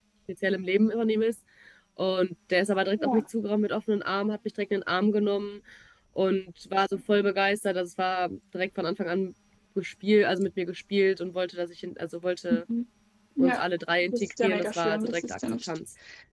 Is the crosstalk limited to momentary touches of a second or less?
No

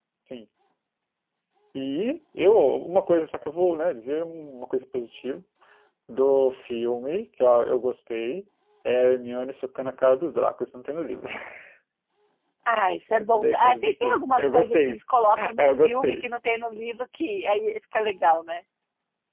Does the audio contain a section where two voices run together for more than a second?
Yes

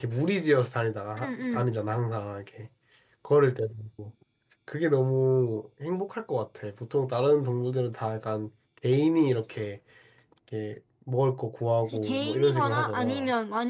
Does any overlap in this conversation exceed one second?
Yes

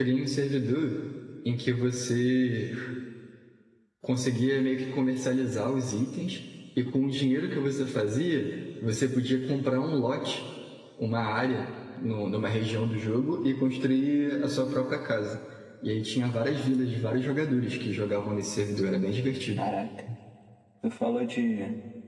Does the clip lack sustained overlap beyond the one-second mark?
Yes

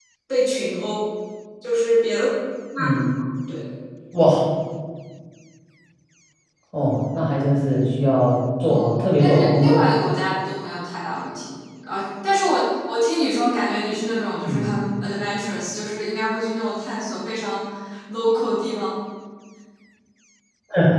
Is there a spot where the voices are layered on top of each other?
Yes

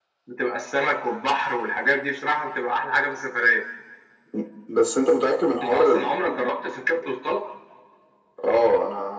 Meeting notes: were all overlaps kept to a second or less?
Yes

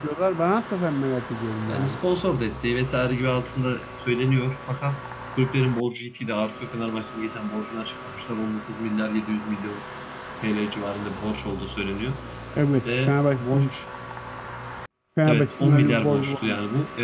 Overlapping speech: Yes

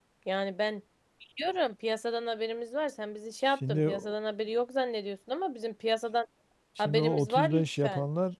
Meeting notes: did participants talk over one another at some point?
Yes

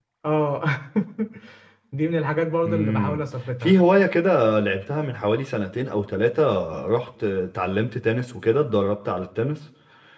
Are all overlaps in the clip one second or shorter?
Yes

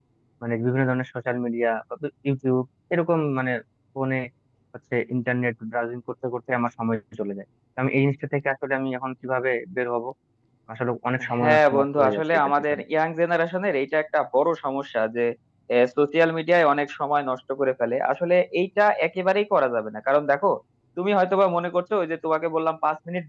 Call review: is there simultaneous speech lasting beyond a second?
Yes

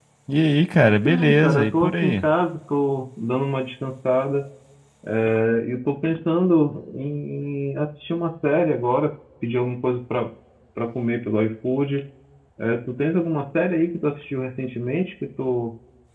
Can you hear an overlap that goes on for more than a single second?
Yes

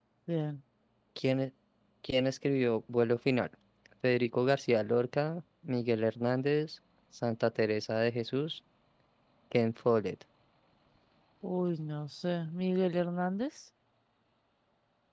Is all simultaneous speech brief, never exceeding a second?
Yes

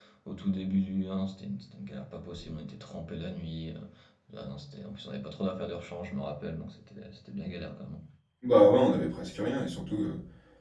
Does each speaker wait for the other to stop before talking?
Yes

